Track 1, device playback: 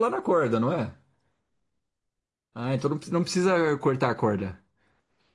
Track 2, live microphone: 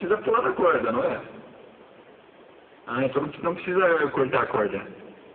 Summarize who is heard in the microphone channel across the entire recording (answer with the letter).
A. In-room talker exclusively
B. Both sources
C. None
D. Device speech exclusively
D